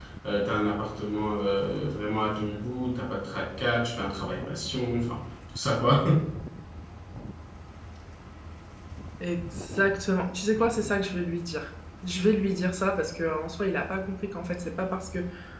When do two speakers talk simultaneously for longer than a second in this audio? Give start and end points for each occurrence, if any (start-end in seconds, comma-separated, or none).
none